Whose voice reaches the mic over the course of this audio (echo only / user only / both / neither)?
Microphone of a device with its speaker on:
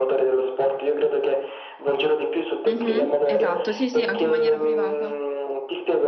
both